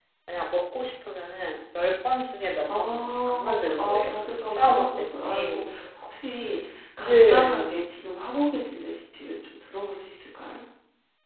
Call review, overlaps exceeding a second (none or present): present